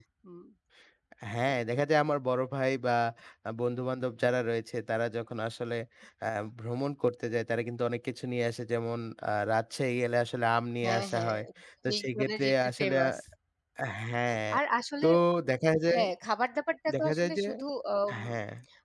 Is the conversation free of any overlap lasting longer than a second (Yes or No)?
No